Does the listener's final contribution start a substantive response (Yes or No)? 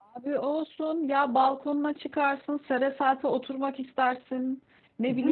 No